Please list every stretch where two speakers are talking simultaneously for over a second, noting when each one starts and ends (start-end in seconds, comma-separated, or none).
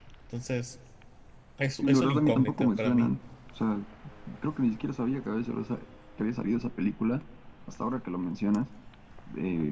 1.8-3.1